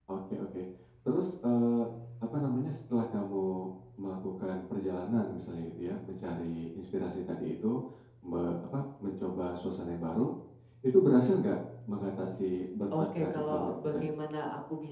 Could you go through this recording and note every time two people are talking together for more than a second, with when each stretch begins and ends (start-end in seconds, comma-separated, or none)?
12.9-14.1